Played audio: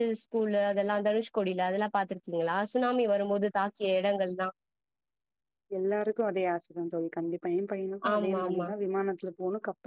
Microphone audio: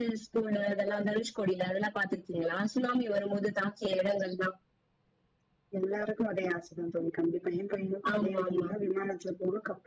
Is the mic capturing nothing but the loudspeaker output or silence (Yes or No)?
Yes